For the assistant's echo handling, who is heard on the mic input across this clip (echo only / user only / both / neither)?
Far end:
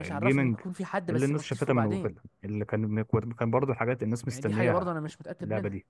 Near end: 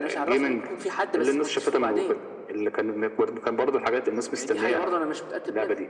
echo only